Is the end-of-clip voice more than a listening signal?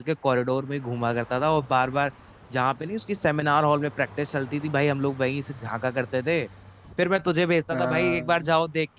No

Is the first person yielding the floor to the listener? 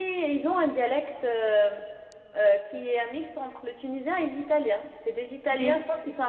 No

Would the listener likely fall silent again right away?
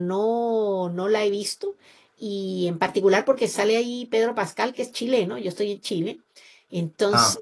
Yes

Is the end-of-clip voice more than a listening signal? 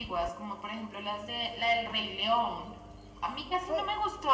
No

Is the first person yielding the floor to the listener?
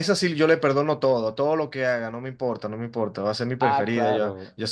No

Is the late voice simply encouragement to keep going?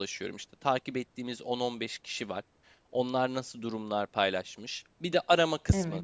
Yes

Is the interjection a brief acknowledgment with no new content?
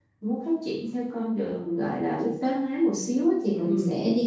Yes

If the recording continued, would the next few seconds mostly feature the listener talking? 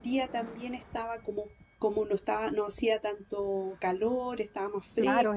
Yes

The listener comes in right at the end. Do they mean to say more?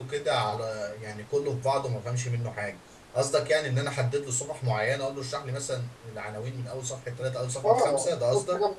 Yes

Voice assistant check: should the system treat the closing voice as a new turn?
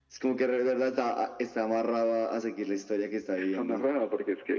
Yes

